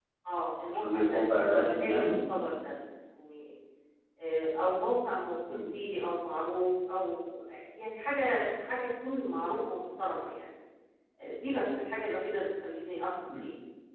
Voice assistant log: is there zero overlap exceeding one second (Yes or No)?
No